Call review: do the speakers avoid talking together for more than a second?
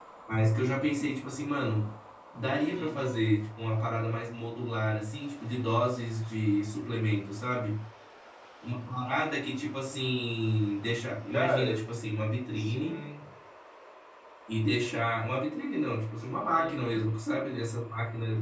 Yes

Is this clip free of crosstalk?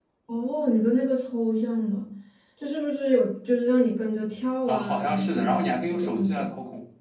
No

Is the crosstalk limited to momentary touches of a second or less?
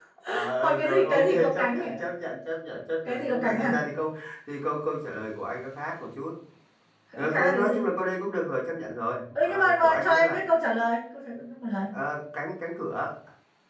No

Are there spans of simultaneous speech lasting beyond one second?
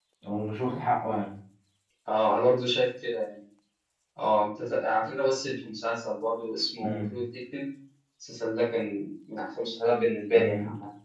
No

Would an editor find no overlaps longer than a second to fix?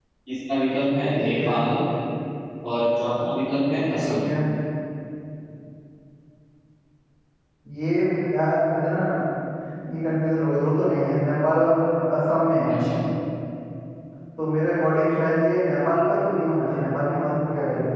Yes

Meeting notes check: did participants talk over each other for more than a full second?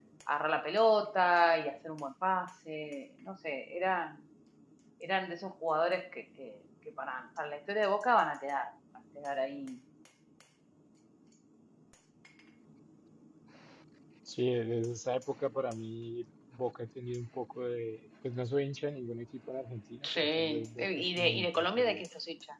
Yes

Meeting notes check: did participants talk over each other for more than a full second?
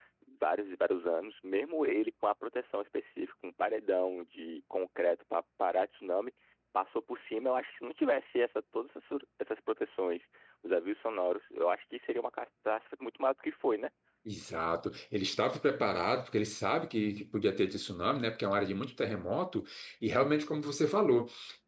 No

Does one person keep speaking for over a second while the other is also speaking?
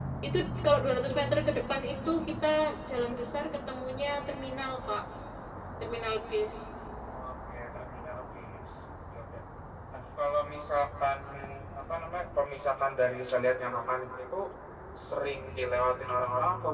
No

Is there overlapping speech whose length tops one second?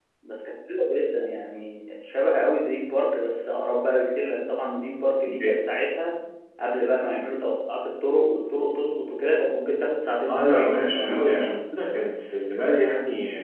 Yes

